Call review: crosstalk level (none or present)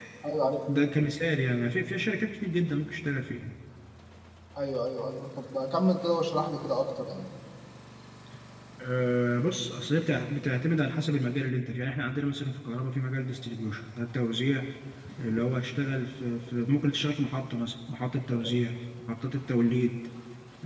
none